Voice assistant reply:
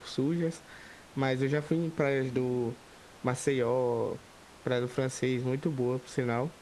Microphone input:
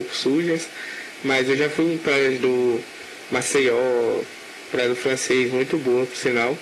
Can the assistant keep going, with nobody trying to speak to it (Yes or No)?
Yes